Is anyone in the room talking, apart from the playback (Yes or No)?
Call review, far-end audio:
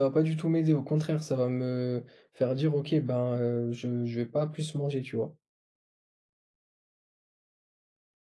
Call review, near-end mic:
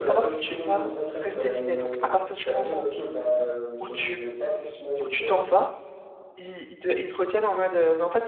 Yes